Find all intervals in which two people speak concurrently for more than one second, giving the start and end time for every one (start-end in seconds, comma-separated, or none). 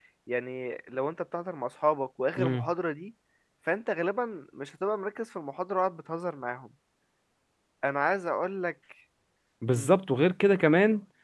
none